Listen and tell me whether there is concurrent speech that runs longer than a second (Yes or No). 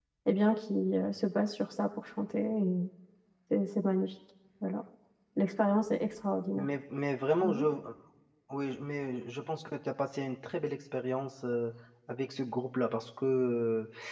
No